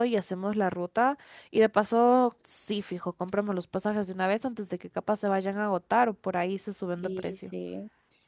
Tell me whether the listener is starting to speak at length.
Yes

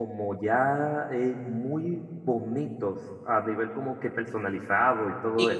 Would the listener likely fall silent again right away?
No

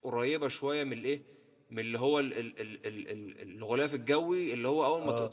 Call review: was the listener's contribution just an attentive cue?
Yes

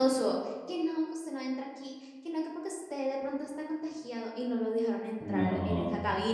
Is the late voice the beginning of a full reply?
No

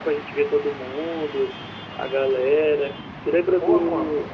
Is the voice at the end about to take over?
No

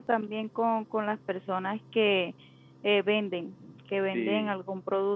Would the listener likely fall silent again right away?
Yes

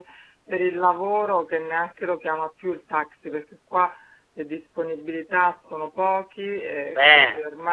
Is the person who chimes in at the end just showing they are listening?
Yes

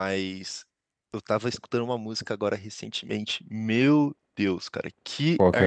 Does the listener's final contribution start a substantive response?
No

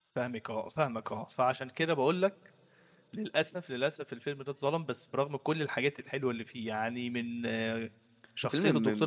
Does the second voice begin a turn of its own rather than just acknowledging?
No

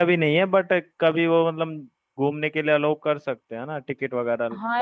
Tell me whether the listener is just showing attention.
No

